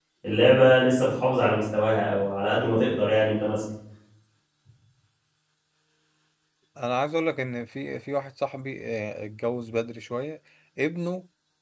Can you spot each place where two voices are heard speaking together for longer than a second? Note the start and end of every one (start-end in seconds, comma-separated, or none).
none